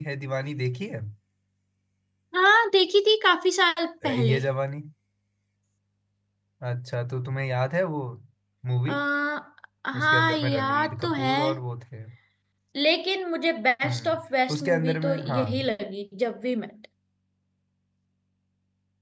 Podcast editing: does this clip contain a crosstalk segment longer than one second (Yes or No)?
Yes